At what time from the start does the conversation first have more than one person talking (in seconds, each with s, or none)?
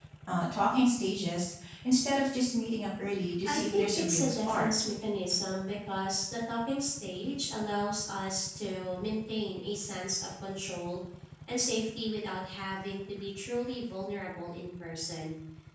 3.5 s